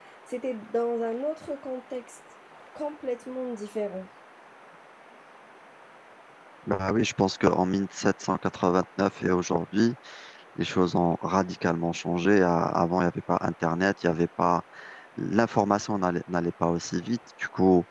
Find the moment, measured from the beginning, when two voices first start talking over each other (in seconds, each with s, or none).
none